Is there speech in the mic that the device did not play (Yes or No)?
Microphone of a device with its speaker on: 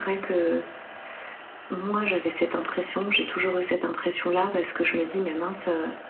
No